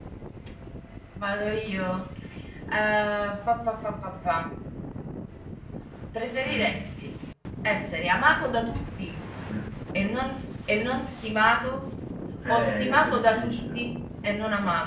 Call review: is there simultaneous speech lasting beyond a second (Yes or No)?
Yes